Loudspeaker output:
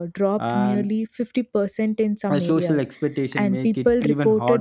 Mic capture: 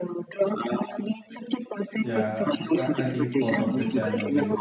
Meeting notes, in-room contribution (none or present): present